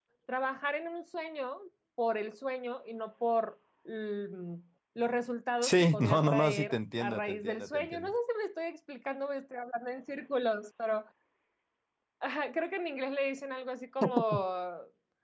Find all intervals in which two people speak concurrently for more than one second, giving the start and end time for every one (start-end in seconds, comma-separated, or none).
5.6-8.1